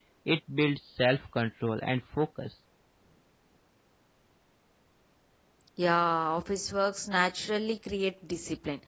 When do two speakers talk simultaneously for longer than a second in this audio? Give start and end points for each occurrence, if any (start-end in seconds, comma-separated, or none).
none